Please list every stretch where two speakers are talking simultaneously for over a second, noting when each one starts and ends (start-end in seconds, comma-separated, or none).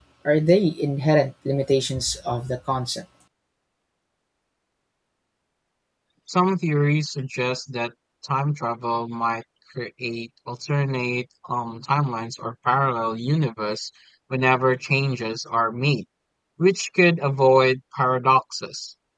none